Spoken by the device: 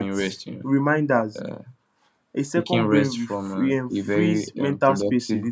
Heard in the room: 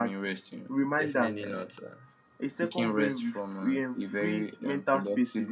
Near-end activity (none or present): present